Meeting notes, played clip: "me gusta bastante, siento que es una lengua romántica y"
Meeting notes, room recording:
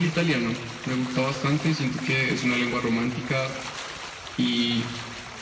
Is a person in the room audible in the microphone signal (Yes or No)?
No